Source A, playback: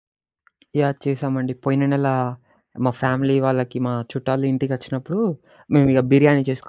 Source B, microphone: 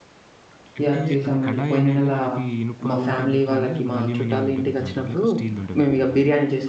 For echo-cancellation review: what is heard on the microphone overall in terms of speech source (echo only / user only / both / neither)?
both